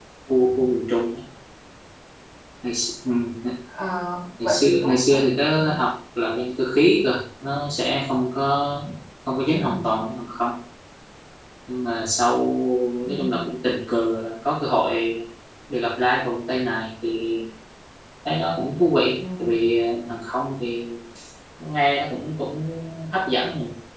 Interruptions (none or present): present